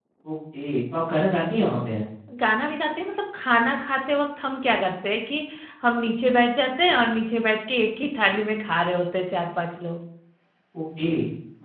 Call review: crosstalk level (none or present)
none